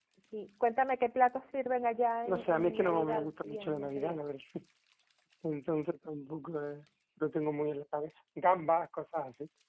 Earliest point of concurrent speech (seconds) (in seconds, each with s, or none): 2.2 s